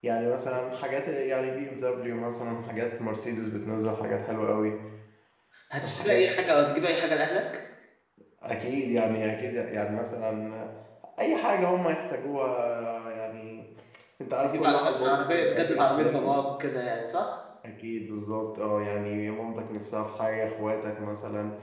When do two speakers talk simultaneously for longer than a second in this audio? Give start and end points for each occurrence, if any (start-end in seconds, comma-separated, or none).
14.4-16.3